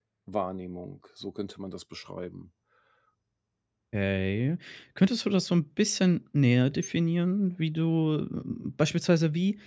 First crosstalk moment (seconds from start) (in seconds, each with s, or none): none